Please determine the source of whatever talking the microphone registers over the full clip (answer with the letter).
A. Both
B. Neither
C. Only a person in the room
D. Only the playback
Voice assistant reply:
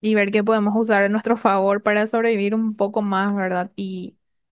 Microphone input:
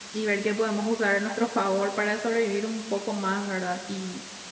D